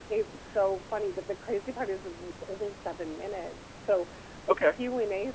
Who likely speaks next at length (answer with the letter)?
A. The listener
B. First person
B